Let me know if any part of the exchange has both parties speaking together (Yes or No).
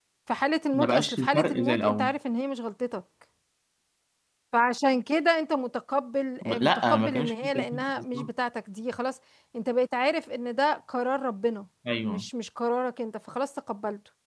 Yes